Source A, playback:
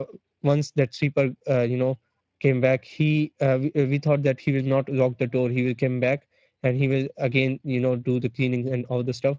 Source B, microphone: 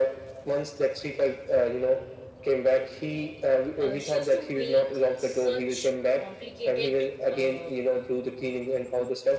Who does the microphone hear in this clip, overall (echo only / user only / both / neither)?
both